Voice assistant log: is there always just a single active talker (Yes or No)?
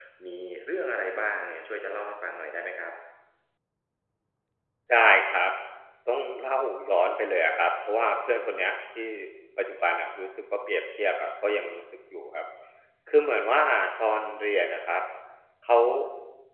Yes